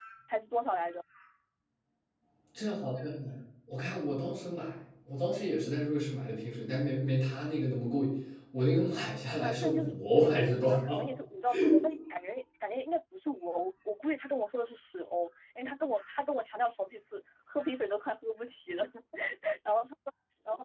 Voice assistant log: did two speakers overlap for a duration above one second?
Yes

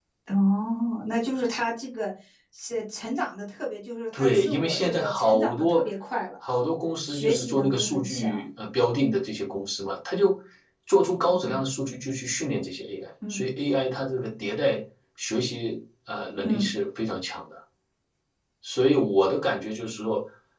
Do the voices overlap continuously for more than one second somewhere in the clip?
Yes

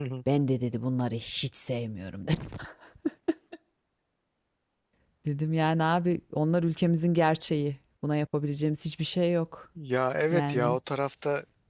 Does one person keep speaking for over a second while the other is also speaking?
No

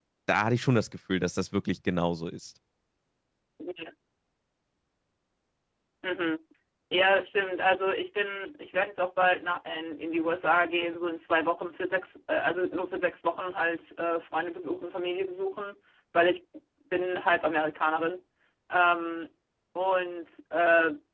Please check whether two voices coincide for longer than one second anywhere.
No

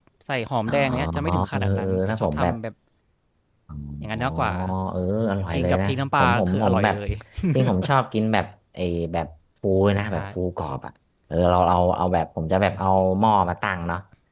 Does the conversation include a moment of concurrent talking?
Yes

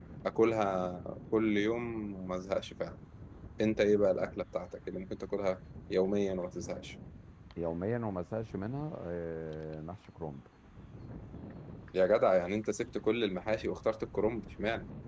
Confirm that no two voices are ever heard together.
Yes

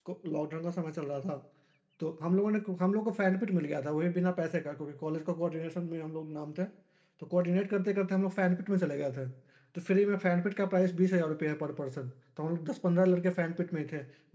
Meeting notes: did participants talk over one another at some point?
No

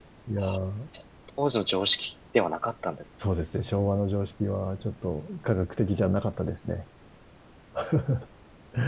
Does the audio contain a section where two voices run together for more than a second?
No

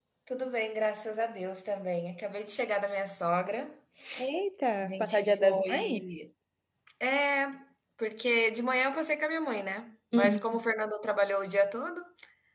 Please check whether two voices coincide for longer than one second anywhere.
Yes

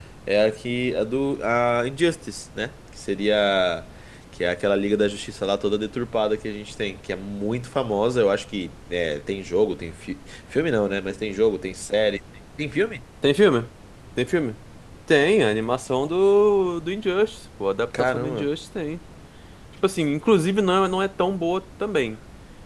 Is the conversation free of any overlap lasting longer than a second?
Yes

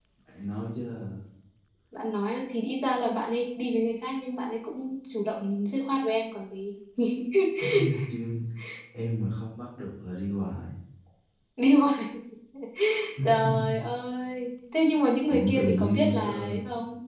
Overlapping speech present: Yes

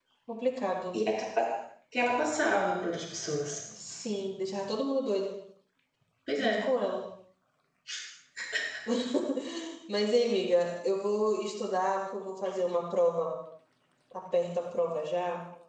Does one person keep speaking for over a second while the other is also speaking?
No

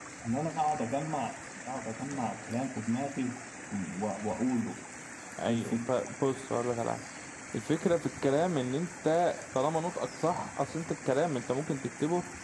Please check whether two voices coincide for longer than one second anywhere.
No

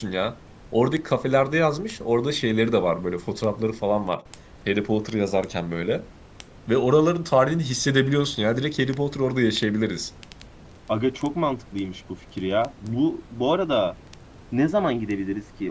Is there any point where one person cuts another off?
No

